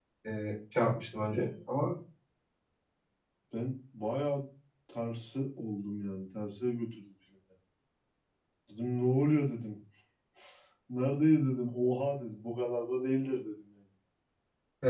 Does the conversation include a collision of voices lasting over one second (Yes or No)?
No